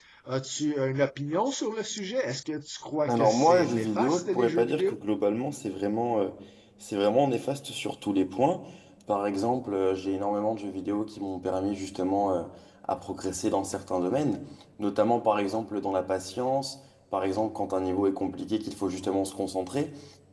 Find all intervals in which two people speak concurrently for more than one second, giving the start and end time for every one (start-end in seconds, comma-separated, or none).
3.1-5.0